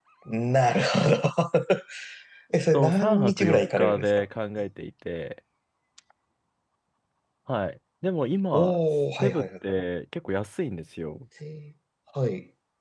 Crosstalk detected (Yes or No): Yes